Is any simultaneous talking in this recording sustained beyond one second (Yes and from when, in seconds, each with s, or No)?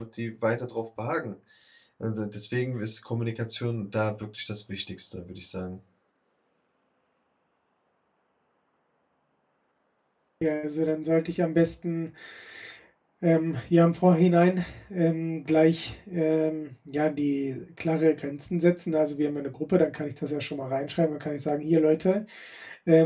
No